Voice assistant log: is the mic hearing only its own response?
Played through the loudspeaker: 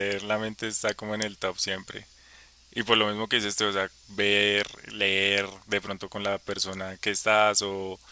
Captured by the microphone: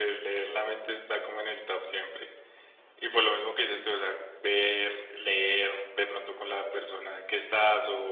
Yes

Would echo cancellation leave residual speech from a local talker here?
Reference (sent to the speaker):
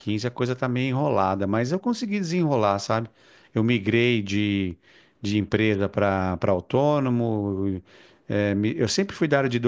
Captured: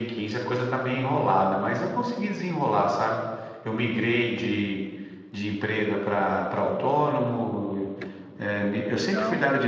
Yes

